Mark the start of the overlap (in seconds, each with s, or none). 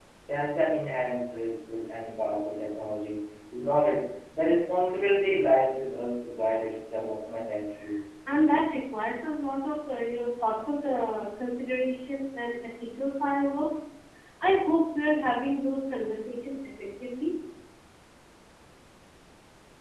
none